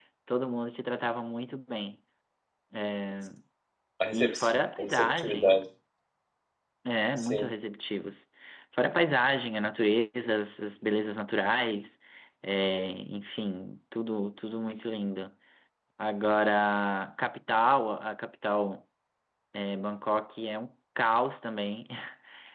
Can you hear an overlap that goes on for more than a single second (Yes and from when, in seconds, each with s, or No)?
Yes, from 4.1 s